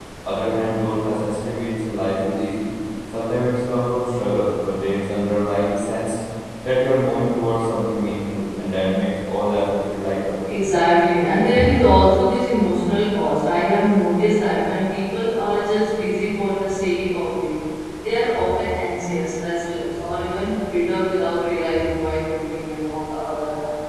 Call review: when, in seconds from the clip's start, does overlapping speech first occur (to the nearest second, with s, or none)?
none